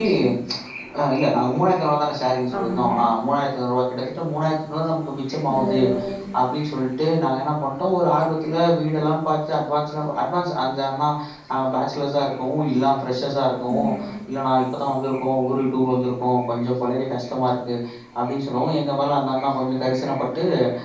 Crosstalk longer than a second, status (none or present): none